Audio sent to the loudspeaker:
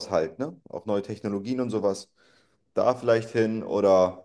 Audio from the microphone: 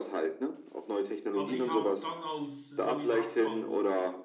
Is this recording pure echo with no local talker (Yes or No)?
No